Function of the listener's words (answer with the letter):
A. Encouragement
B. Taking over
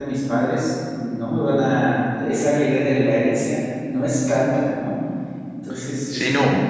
B